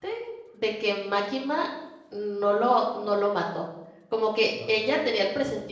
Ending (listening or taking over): listening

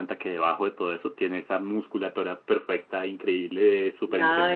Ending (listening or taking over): taking over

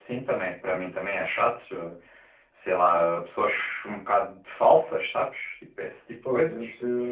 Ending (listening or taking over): taking over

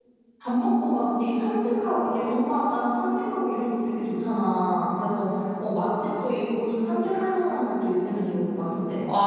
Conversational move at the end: taking over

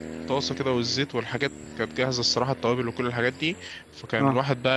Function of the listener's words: listening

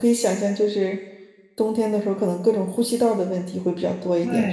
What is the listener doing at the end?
taking over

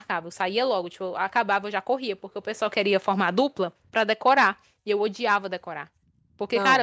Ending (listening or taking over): listening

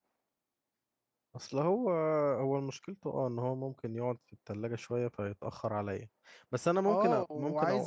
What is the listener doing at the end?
taking over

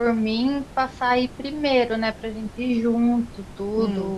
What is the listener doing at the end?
listening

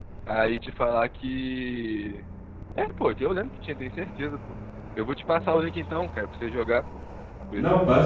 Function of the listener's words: taking over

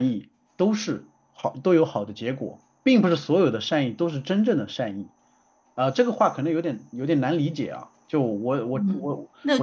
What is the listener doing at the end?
taking over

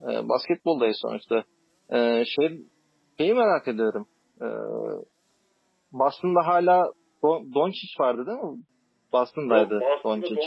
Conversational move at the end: taking over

